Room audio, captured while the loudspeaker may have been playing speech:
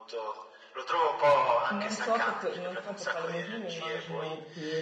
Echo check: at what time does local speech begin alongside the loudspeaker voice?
1.7 s

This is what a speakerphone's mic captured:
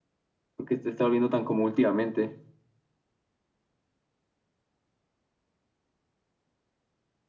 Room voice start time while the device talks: 0.6 s

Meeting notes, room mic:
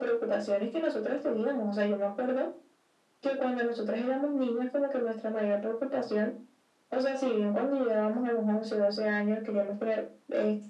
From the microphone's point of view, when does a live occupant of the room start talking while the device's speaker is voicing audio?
none

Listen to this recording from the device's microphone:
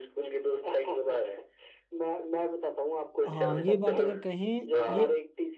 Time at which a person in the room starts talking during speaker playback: 3.3 s

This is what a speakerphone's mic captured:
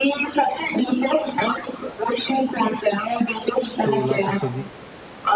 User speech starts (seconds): 3.7 s

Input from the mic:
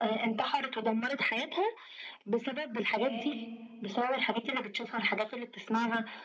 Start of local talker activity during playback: 2.9 s

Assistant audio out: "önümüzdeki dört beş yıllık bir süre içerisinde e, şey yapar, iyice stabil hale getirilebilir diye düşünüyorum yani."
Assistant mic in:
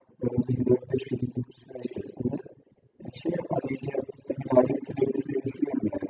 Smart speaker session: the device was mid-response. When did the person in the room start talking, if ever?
none

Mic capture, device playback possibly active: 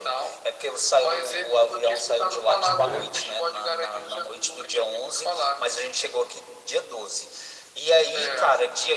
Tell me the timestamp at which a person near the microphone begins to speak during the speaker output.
2.6 s

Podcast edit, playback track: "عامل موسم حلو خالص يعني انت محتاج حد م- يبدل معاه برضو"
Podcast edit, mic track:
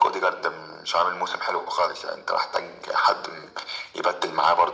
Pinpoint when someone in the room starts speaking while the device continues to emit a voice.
none

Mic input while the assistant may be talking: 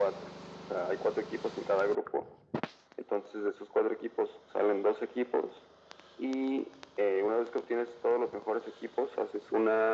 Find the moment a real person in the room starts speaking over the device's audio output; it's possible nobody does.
none

